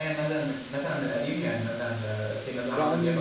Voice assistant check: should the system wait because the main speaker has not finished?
No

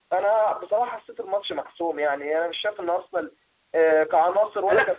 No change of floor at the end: No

